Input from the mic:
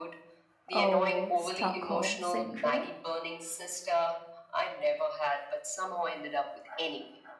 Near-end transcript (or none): Oh, Stockholm syndrome.